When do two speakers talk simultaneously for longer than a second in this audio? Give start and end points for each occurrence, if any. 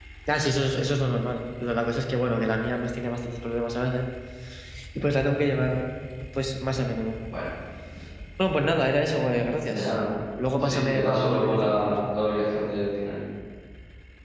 10.6-12.0

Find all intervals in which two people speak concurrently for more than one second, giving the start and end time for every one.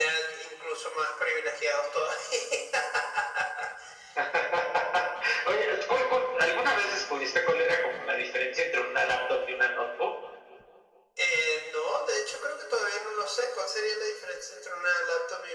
none

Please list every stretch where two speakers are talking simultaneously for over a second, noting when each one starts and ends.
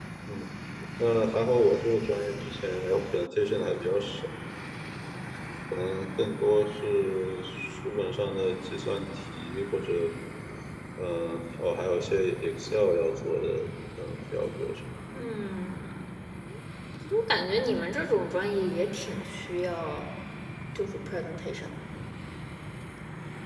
none

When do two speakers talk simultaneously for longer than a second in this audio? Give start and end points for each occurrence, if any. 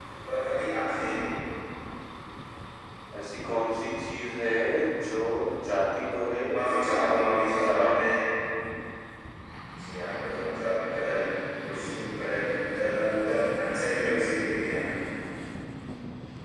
6.5-7.9

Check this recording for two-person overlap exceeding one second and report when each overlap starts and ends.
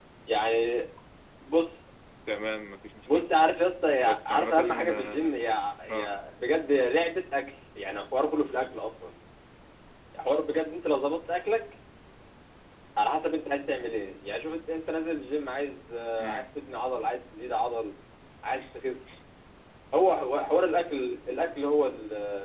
4.0-5.3

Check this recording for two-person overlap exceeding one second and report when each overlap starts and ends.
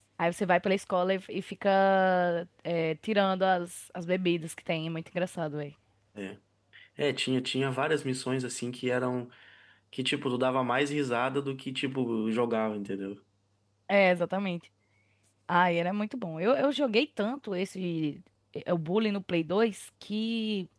none

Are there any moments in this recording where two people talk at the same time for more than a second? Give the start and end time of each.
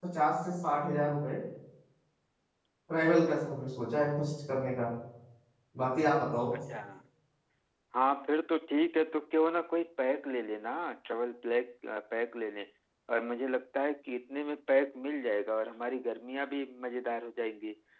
none

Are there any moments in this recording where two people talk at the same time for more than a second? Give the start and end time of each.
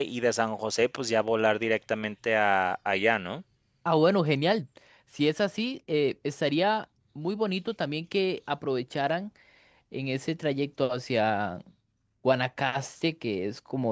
none

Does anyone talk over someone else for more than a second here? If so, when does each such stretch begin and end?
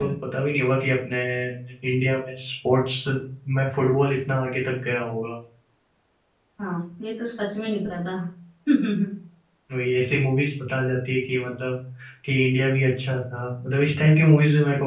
none

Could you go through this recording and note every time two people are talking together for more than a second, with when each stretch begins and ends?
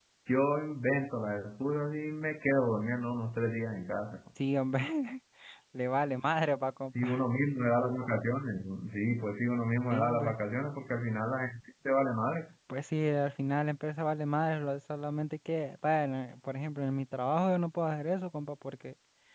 none

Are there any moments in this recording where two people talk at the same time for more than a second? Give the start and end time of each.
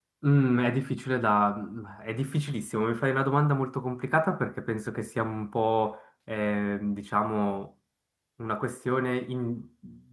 none

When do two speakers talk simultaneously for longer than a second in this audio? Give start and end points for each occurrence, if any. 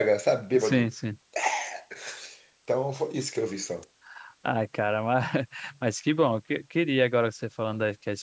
none

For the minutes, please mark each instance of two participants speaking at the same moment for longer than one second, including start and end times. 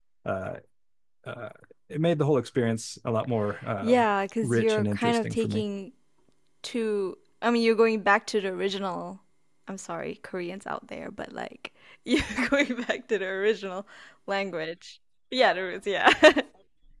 4.4-5.6

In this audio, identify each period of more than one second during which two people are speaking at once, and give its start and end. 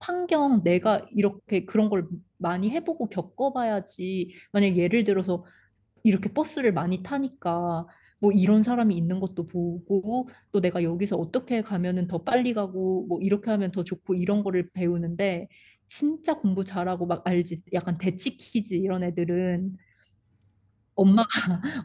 none

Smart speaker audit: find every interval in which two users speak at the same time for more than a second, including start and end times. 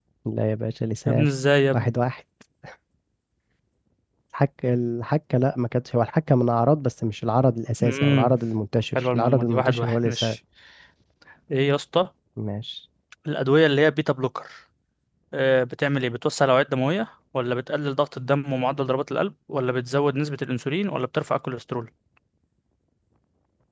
8.9-10.4

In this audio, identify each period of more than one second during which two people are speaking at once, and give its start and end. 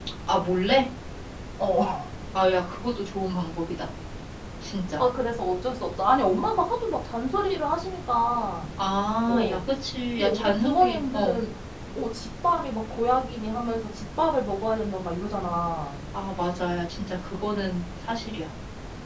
10.2-11.4

